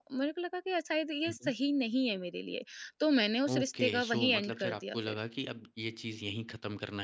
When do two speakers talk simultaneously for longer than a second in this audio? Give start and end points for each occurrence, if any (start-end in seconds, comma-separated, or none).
3.5-5.2